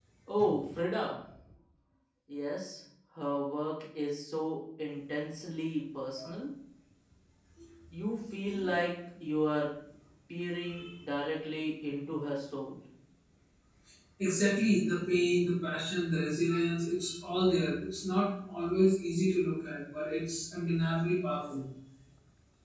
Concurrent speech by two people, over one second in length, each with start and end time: none

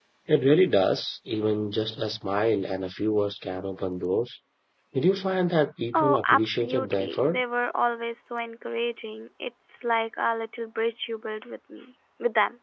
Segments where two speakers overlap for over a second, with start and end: 5.9-7.4

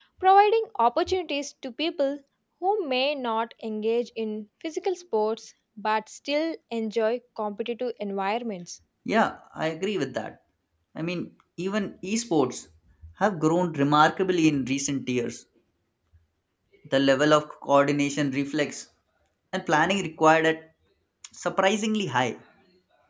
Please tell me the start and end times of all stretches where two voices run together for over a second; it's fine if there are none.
none

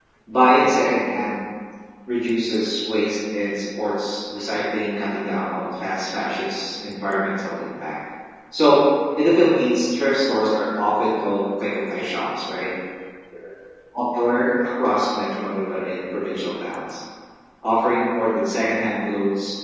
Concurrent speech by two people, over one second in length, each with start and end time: none

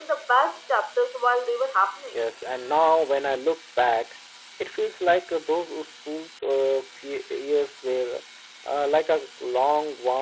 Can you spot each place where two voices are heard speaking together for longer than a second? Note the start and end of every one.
none

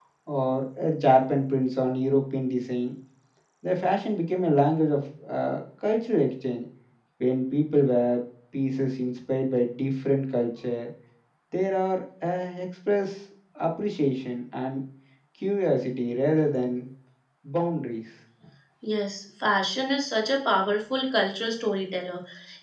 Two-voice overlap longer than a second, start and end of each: none

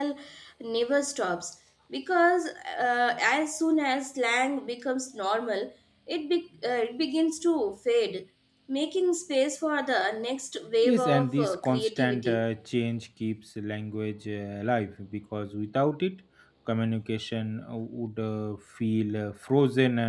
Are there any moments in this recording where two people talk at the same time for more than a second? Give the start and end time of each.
10.8-12.4

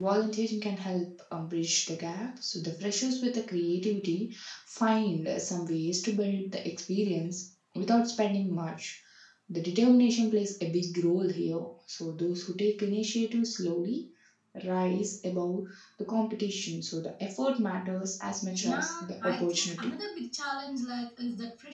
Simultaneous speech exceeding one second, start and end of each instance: 18.5-19.9

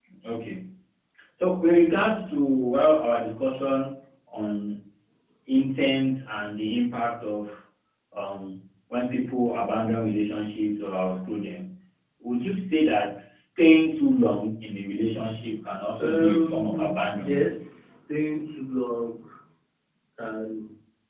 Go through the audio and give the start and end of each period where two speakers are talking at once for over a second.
16.0-17.5

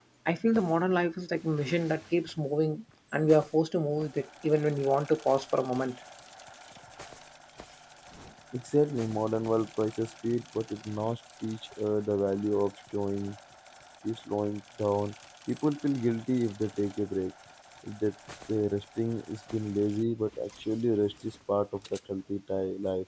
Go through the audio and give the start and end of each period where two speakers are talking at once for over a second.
none

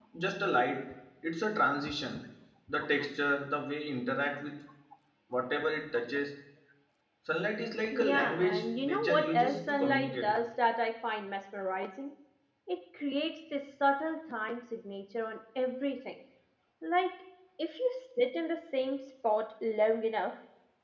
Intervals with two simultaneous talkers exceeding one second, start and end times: 7.9-10.3

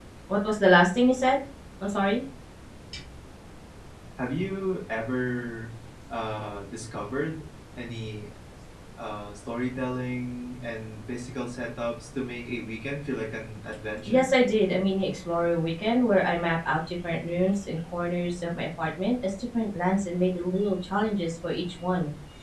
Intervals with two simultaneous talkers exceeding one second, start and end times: none

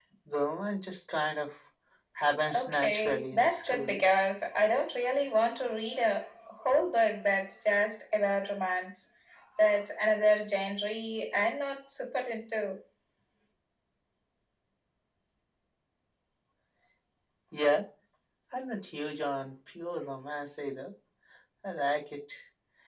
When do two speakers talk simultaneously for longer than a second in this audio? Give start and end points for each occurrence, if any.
2.5-4.0

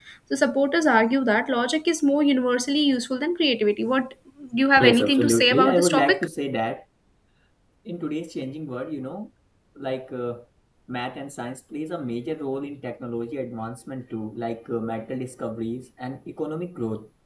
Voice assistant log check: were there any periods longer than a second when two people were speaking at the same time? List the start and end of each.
4.8-6.3

